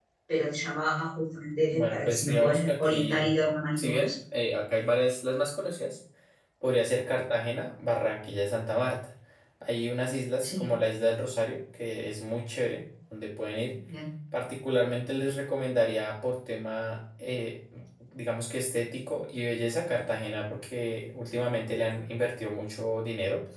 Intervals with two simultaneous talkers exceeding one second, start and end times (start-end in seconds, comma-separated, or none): 1.7-3.3